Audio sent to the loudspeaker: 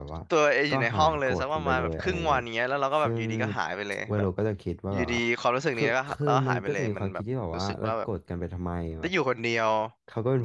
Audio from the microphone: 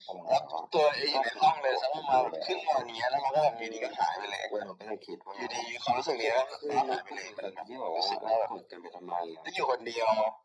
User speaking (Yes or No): No